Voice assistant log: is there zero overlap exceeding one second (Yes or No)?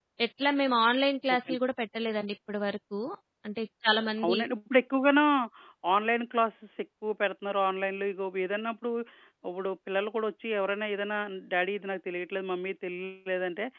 Yes